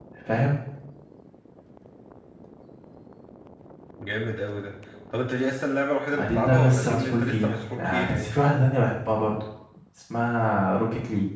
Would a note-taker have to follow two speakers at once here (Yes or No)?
Yes